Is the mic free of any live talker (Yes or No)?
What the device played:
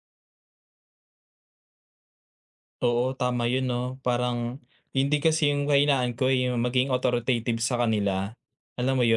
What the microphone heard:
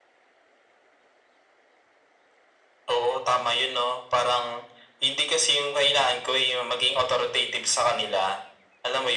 Yes